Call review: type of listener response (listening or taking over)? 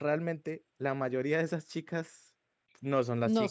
listening